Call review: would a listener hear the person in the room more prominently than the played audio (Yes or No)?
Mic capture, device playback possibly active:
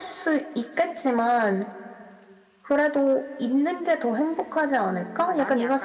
No